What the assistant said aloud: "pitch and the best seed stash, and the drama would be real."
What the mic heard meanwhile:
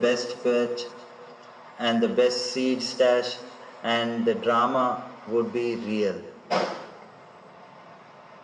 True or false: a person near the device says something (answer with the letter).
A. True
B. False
B